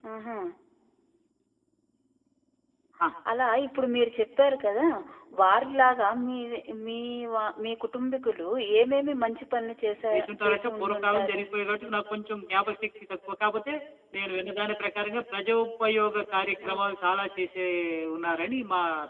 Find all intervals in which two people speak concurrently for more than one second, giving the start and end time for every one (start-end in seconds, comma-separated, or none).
10.1-11.4